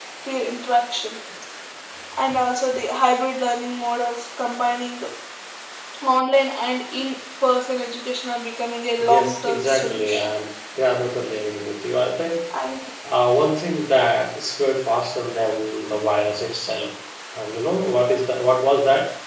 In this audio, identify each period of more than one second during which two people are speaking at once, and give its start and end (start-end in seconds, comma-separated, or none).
9.0-10.3